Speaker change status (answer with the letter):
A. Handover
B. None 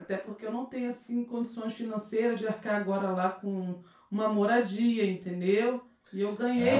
A